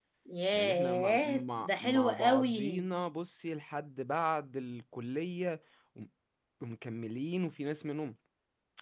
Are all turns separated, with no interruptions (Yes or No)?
No